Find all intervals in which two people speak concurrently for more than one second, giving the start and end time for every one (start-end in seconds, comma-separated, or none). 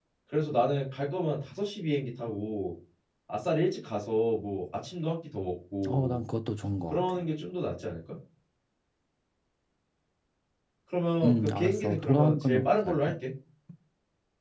11.2-13.1